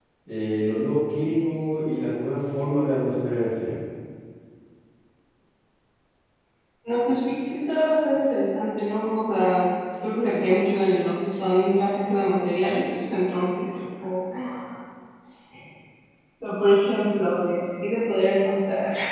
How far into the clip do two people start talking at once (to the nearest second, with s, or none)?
none